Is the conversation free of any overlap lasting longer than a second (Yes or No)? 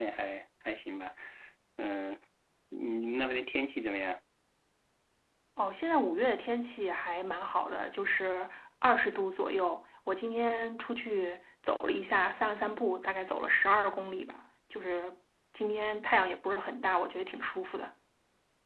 Yes